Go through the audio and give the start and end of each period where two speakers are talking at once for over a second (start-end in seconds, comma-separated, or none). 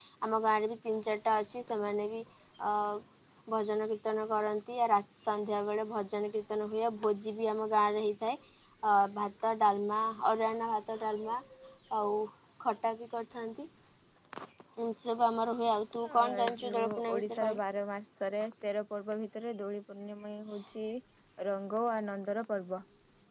16.2-17.6